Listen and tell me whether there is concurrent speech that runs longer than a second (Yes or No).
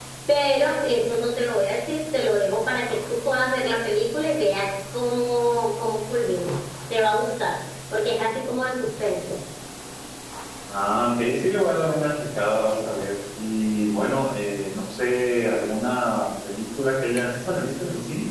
No